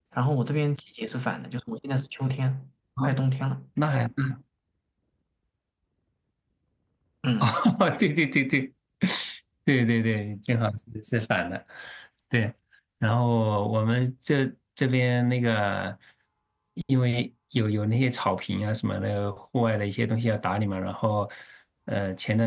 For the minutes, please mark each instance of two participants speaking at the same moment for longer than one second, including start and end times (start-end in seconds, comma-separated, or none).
none